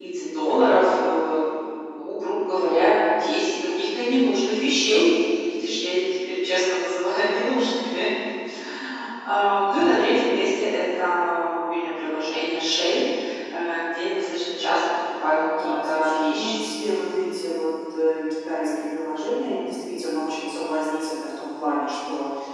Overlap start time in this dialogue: 15.4 s

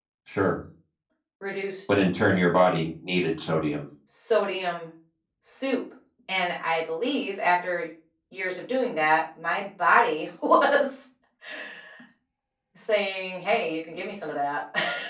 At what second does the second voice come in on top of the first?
none

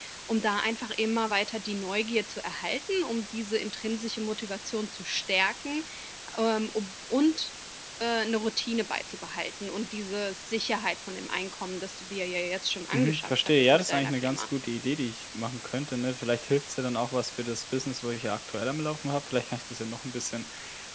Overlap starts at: 12.9 s

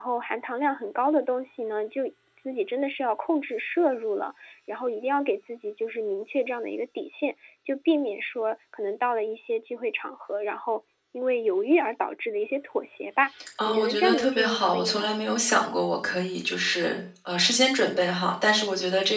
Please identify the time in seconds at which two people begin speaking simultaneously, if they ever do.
13.4 s

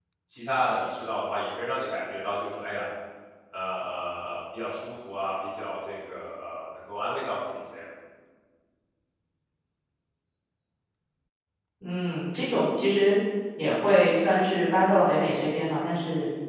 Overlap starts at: none

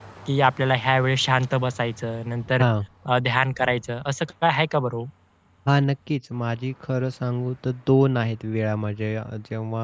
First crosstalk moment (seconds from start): none

